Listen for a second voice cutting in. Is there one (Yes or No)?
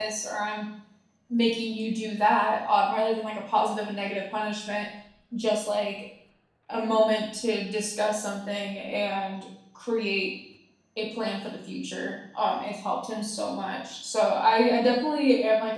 No